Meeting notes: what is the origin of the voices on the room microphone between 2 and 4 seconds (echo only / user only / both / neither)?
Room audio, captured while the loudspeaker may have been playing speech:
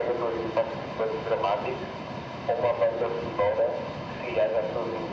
echo only